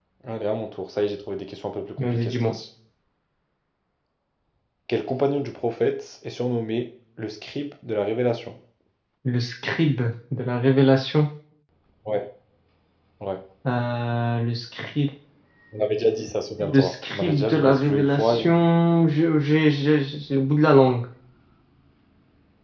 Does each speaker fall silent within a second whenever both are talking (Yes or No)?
No